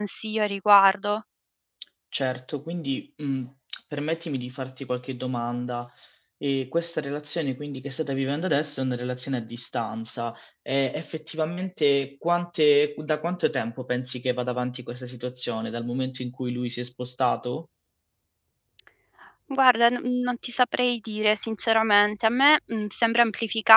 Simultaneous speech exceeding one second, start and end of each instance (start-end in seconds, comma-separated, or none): none